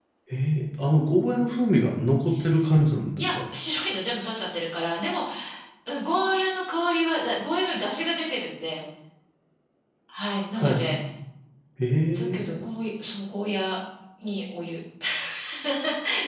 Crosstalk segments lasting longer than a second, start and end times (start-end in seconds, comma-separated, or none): none